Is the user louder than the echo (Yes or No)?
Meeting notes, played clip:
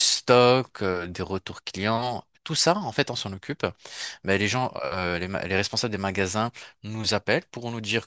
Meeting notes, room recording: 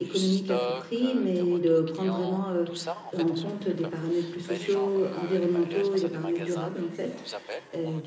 Yes